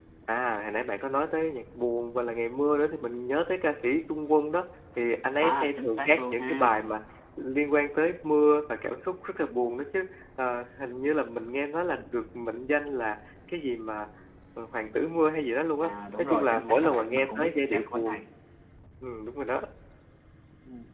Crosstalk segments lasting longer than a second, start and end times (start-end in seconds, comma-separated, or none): 5.4-6.8, 15.8-18.2